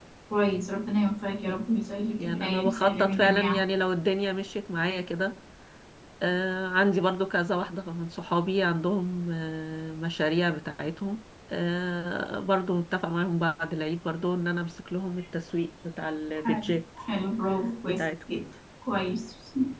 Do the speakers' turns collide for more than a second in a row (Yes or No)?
Yes